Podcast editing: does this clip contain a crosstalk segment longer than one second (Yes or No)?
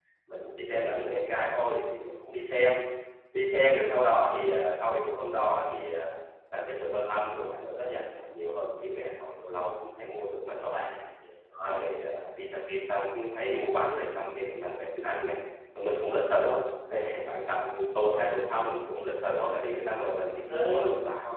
No